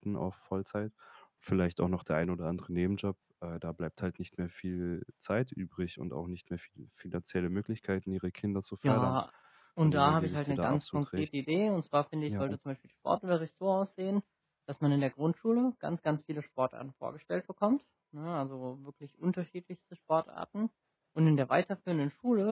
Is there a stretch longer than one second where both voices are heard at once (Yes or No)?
Yes